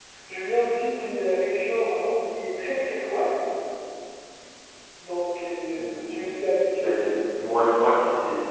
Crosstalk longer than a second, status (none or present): none